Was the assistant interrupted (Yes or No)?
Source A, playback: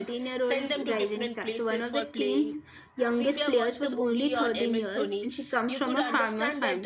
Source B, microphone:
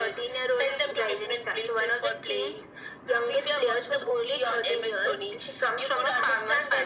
No